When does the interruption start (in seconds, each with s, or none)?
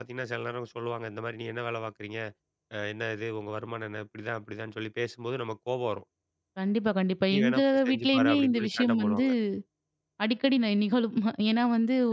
7.3 s